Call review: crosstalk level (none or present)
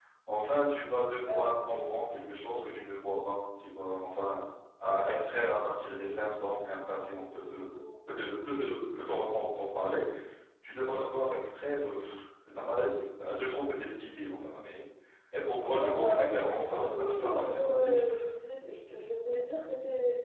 present